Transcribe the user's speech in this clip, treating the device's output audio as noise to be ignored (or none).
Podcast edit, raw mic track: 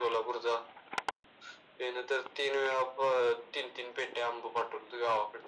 none